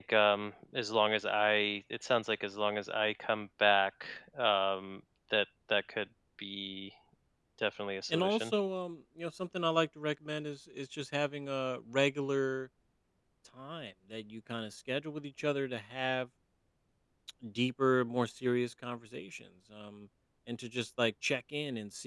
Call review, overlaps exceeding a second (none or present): none